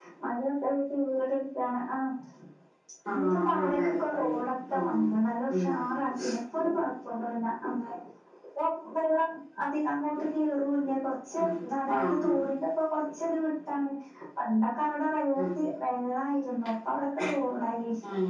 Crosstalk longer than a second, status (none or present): present